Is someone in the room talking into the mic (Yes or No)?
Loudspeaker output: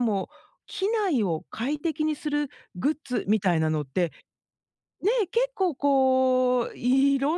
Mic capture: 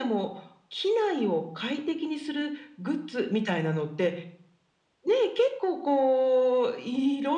No